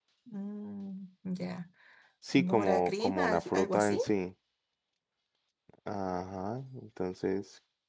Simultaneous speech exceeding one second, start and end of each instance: 2.3-4.0

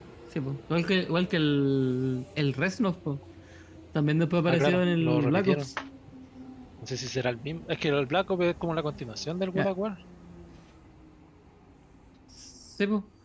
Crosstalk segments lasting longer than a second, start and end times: 4.5-5.7

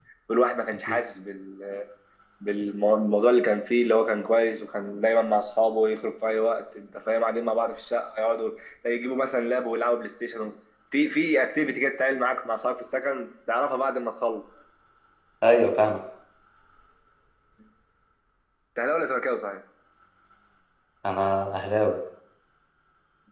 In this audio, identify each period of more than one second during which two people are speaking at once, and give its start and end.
none

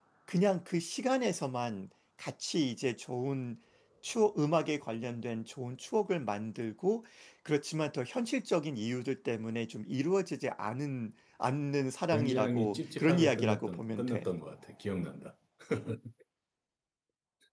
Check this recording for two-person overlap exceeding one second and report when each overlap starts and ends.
12.1-14.3

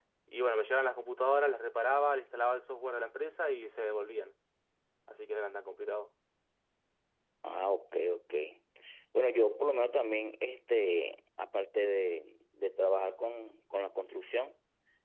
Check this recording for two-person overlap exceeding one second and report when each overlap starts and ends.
none

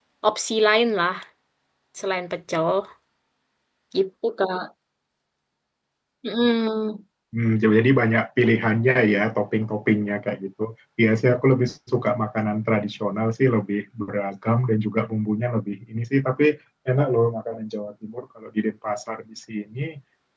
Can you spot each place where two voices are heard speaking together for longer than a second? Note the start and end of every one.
none

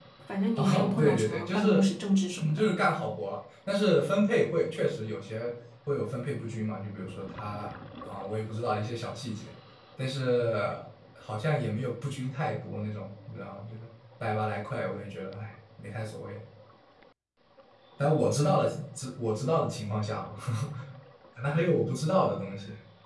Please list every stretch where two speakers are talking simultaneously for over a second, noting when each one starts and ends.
0.6-1.8

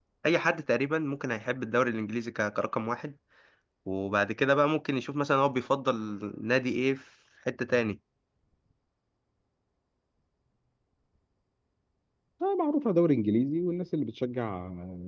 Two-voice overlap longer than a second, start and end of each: none

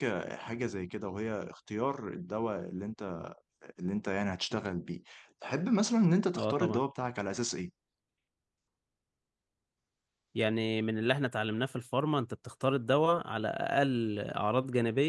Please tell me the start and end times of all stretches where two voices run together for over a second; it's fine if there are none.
none

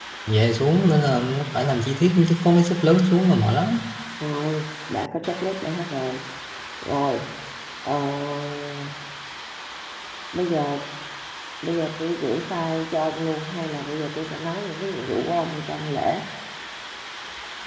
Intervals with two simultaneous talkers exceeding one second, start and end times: none

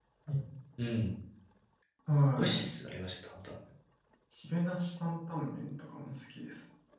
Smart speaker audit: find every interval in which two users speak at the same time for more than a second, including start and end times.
none

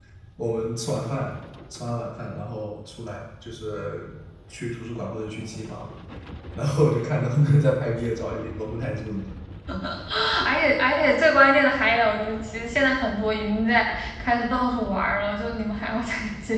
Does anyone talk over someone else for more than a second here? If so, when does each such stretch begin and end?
none

